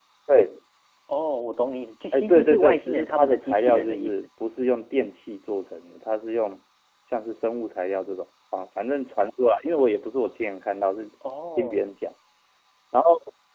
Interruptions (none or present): present